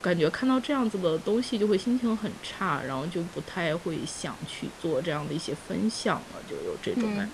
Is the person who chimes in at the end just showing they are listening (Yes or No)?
No